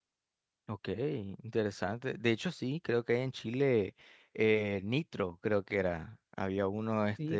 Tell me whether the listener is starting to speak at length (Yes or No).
Yes